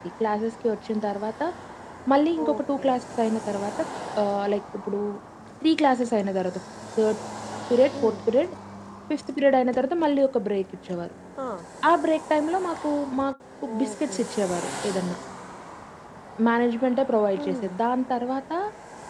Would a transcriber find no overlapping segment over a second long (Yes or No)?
Yes